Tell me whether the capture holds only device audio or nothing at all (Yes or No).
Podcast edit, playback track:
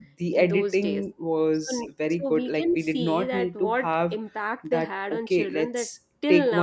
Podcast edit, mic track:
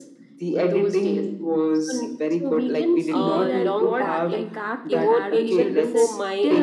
No